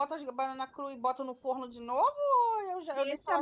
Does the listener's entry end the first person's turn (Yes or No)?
Yes